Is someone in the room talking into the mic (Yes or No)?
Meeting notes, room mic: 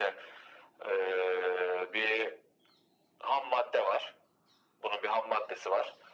No